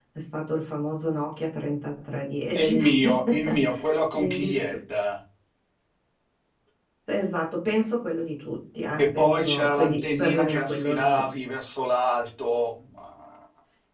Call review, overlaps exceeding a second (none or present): present